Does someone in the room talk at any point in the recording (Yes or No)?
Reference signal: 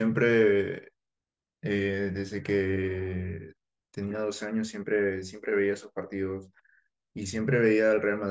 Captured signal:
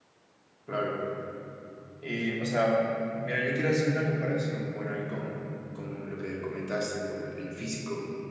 Yes